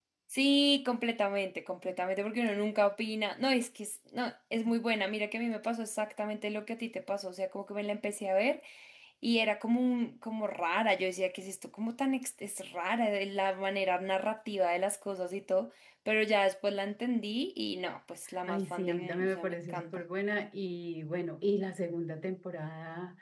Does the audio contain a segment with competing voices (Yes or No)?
Yes